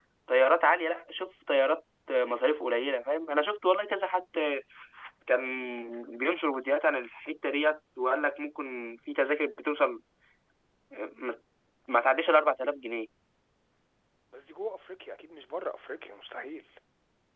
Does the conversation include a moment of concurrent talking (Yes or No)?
No